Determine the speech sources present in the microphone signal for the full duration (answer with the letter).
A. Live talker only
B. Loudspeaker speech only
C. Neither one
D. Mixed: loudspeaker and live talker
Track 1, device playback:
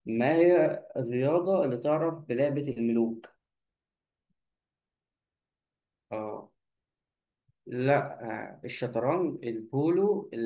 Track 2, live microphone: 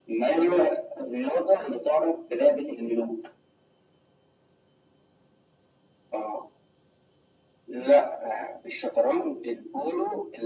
B